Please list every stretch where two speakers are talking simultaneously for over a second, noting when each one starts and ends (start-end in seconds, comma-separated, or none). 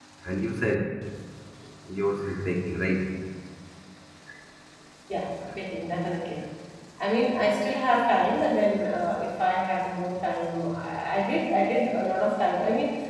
none